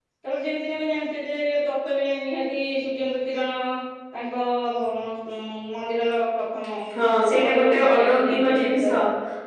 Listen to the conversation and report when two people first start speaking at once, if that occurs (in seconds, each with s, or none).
7.4 s